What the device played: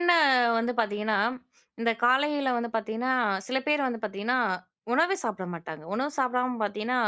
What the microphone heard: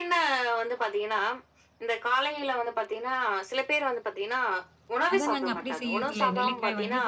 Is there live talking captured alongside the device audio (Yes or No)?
Yes